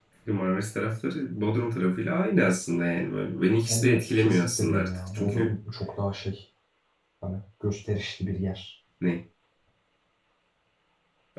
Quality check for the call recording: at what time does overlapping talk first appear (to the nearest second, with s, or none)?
4 s